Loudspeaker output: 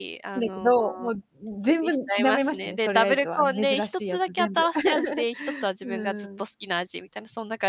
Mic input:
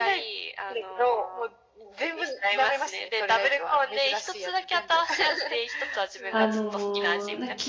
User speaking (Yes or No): Yes